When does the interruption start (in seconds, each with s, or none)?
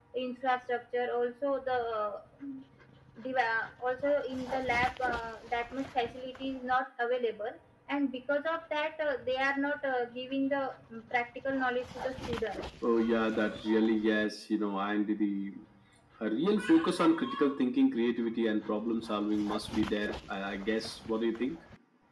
none